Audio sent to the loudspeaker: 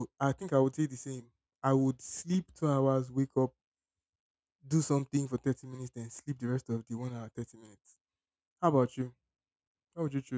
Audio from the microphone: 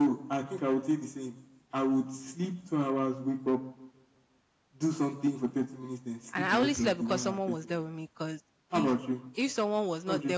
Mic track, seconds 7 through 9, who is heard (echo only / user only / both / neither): both